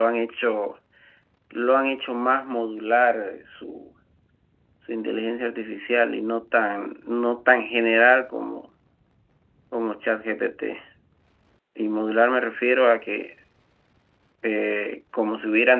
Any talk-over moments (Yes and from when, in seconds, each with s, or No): No